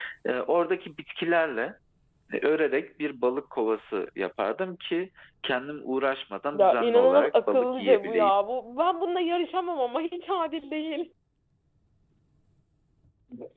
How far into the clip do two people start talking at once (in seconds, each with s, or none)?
6.5 s